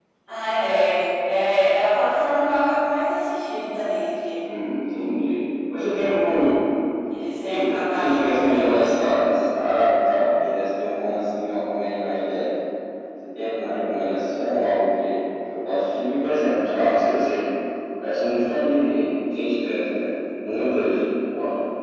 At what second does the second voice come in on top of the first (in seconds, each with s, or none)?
7.5 s